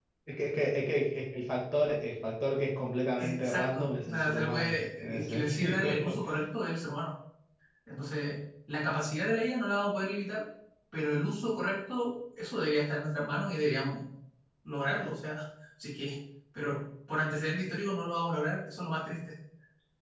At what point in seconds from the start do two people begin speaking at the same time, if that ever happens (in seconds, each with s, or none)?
3.2 s